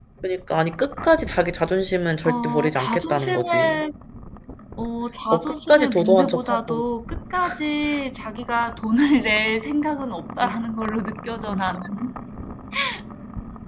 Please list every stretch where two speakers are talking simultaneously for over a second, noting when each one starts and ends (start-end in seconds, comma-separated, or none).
2.2-3.8, 5.3-6.8